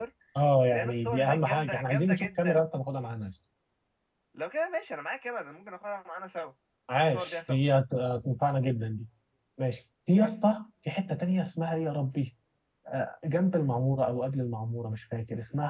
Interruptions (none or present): present